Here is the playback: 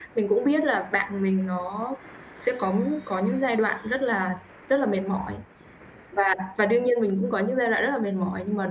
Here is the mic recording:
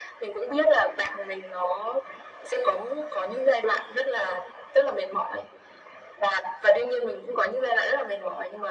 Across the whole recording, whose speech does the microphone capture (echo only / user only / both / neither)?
echo only